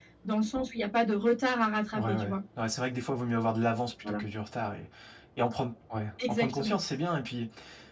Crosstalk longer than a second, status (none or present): none